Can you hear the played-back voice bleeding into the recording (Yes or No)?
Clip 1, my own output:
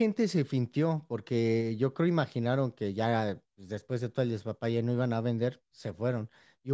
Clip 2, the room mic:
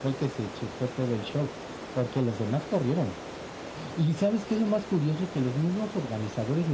No